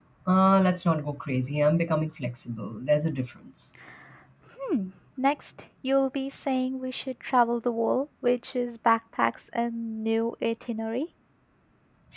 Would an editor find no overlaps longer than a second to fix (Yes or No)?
Yes